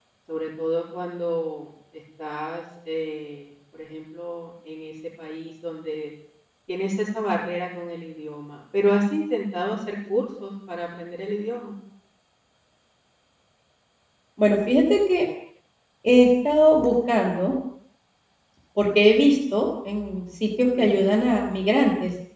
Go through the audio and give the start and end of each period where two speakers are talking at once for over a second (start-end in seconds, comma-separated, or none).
none